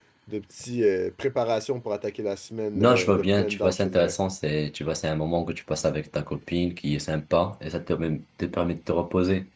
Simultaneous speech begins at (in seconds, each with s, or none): 2.8 s